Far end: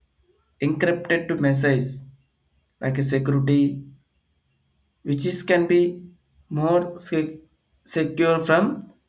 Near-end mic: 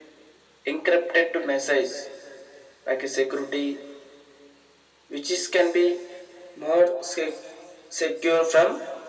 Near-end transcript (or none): none